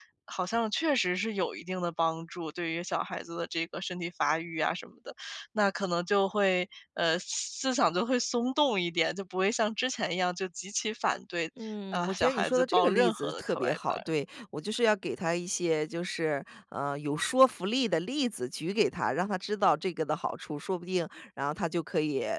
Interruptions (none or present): present